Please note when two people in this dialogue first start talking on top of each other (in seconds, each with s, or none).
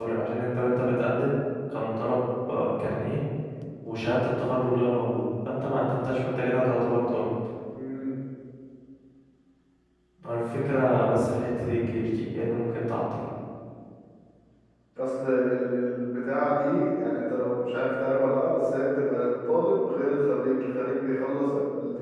none